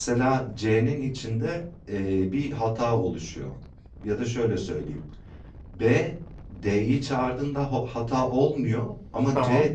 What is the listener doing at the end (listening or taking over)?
listening